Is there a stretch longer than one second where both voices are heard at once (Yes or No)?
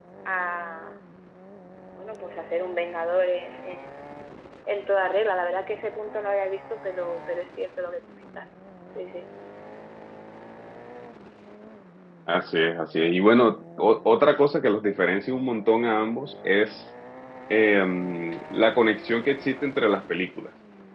No